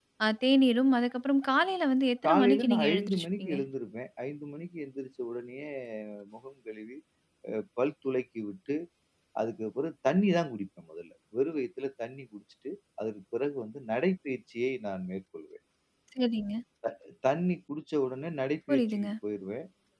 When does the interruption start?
2 s

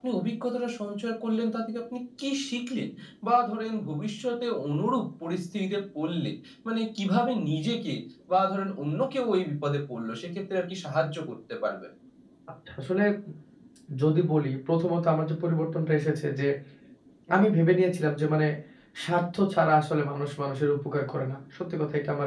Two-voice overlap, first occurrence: none

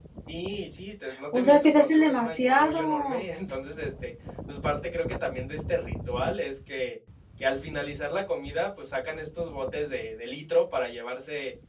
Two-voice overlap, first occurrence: 1 s

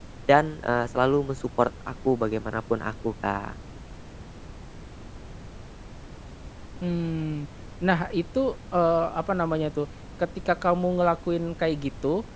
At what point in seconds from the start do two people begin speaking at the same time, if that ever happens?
none

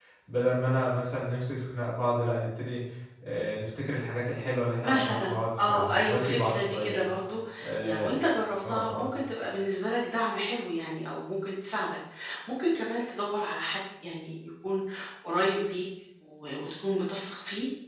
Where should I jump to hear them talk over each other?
5 s

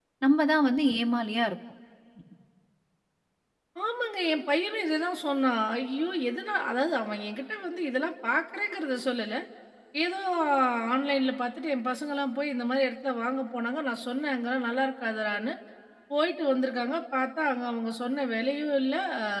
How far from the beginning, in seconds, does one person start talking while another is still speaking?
none

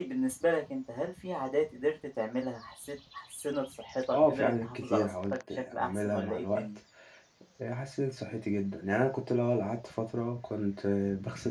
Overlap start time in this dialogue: 4 s

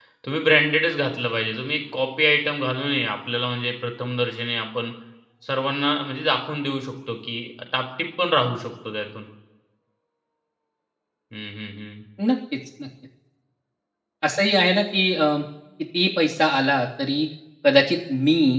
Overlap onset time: none

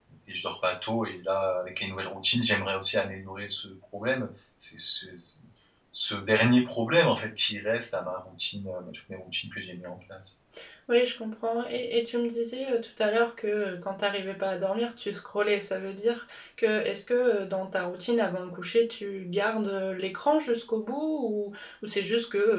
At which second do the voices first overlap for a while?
none

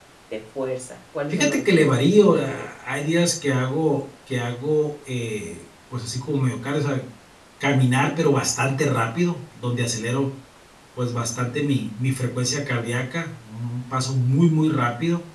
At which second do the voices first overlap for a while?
1 s

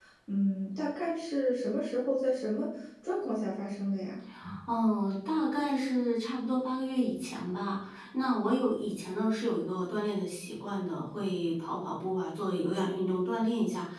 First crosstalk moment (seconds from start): none

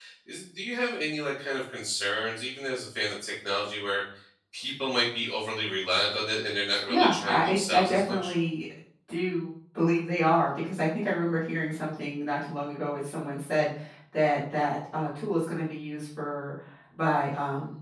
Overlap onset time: 7 s

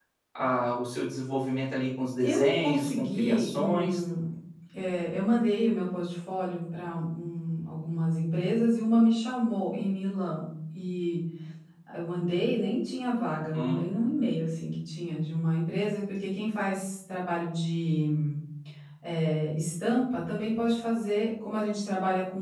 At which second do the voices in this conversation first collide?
2 s

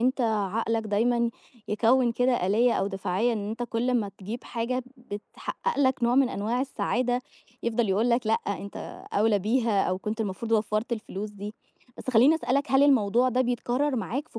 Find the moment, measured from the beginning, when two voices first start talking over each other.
none

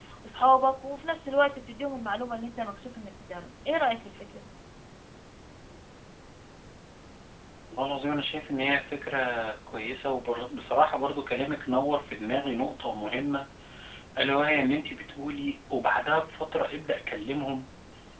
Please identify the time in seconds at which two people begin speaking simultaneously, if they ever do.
none

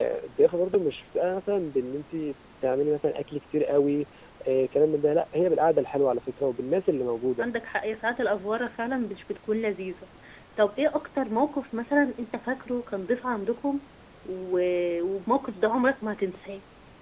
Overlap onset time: none

